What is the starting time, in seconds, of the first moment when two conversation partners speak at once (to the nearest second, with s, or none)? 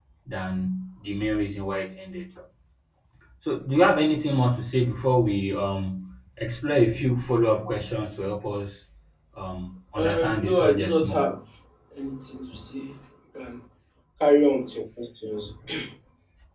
10 s